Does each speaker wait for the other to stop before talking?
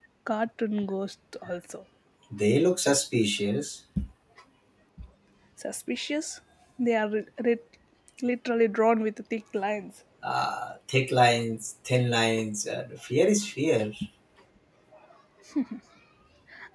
Yes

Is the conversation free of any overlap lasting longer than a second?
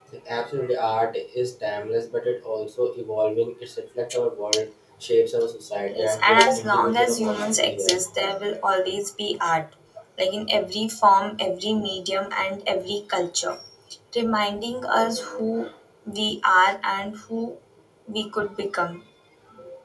No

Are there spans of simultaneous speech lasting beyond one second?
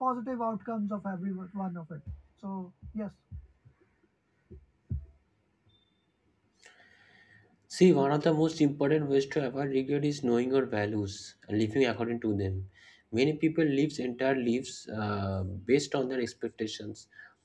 No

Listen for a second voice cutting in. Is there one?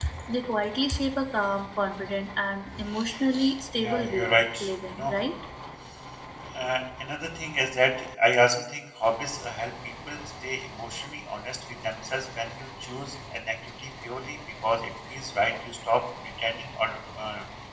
Yes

